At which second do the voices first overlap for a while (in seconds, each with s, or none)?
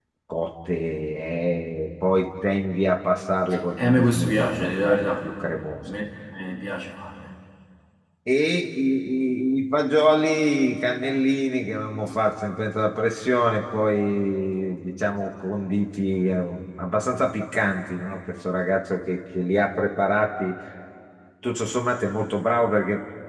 3.8 s